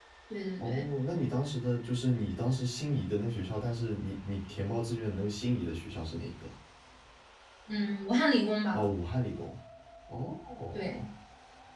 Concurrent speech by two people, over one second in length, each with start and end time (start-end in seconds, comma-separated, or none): none